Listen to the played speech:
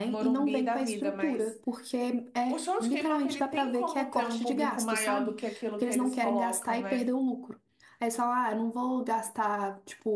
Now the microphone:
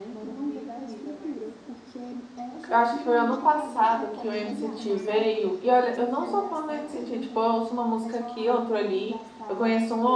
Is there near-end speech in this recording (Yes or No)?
Yes